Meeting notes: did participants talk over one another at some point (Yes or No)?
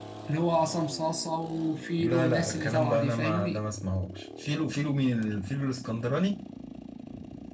Yes